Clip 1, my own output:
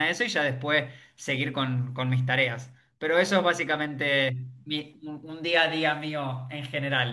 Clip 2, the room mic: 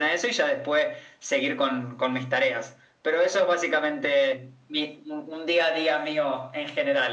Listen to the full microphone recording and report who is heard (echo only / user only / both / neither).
echo only